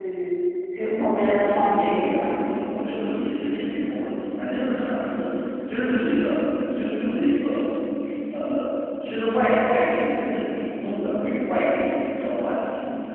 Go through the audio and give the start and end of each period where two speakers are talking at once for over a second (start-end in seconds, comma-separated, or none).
0.8-2.5